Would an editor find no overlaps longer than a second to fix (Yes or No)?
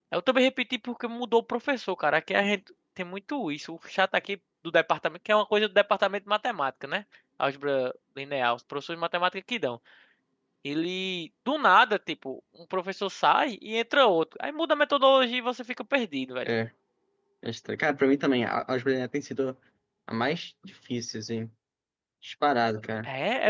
Yes